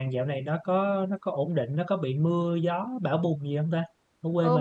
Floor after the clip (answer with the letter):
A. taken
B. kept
A